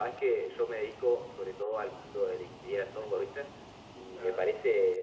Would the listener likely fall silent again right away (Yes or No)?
Yes